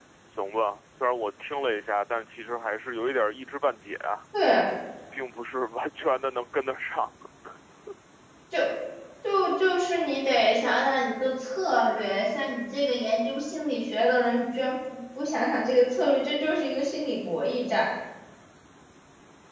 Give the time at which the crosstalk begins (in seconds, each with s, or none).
none